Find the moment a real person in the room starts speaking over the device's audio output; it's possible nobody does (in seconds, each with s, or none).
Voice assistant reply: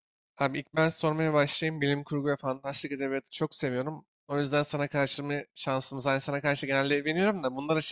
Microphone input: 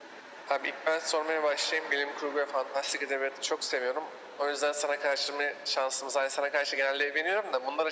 none